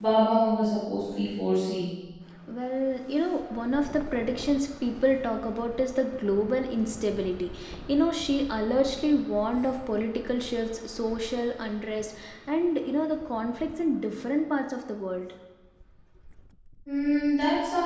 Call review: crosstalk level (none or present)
none